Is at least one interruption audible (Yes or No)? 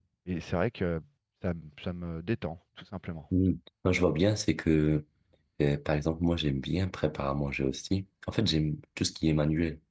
No